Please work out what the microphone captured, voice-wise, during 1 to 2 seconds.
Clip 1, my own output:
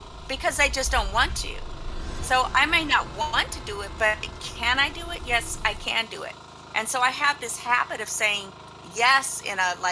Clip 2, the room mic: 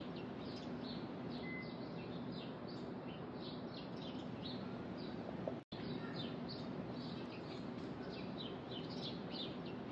neither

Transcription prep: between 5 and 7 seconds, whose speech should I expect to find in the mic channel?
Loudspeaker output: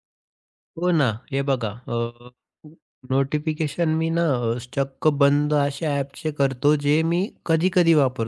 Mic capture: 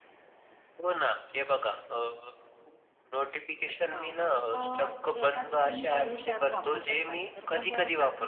both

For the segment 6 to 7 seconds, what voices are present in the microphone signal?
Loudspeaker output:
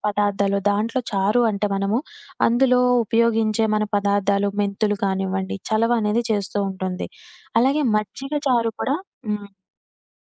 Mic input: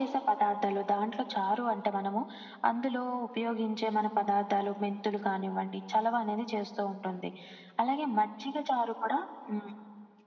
echo only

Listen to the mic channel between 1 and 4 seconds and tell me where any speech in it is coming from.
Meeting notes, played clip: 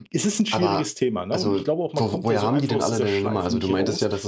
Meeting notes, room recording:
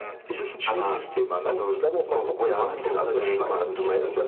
echo only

